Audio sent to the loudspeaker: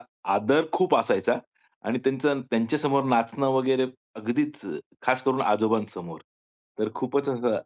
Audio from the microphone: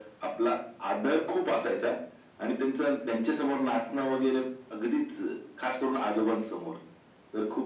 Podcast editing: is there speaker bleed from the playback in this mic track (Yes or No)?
Yes